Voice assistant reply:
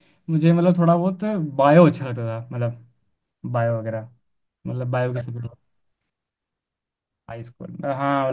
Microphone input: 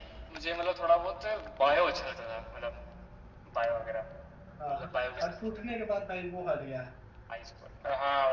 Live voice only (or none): हाँ, और टूटने के बाद भाई वो हट गया